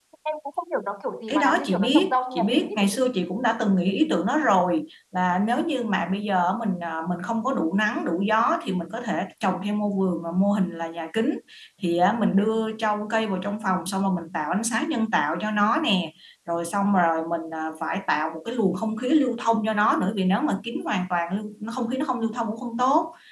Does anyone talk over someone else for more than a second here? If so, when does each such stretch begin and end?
1.3-3.0

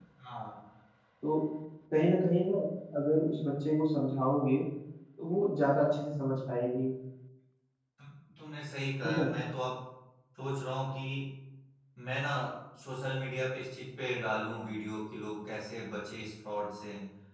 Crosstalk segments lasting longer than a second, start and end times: none

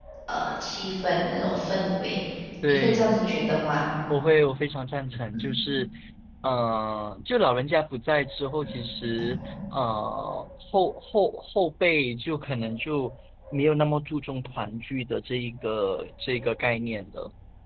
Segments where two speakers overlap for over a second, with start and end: none

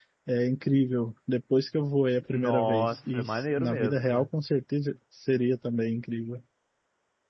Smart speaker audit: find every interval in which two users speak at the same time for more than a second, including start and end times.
2.3-4.3

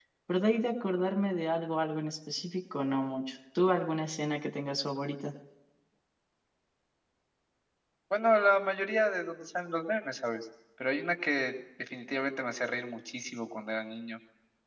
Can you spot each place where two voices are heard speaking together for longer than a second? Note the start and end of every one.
none

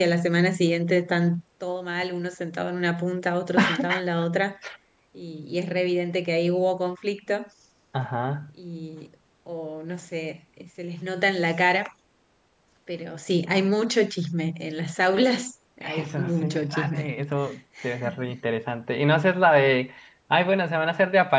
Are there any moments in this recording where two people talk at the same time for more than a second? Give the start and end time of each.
15.8-17.1

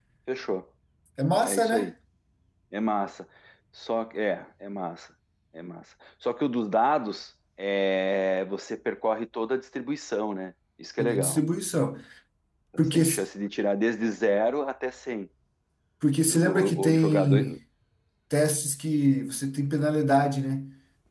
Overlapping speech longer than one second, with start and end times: 16.3-17.6

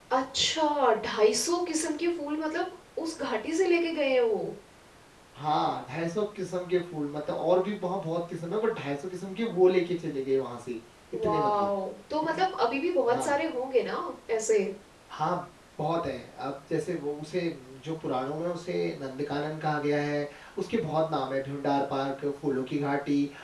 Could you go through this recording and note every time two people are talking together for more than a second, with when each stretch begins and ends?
none

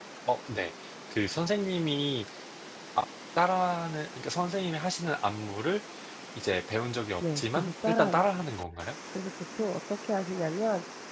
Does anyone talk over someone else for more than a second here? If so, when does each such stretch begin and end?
7.2-8.6

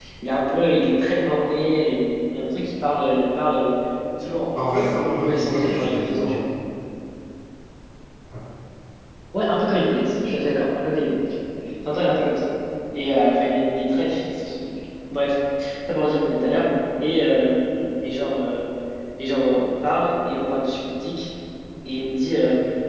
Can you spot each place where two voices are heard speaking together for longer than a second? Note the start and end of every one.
4.6-6.4

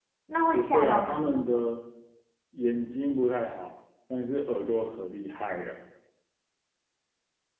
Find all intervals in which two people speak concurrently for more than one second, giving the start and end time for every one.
0.5-1.7

